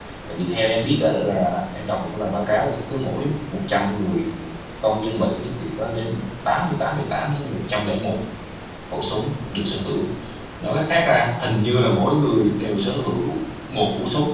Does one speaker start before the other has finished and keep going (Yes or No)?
No